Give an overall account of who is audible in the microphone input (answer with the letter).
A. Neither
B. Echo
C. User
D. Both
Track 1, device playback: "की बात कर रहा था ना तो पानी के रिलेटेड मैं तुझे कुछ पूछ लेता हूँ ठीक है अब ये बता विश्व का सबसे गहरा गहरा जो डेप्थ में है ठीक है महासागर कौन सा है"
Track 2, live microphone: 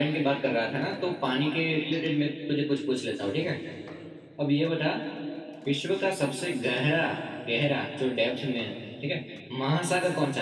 B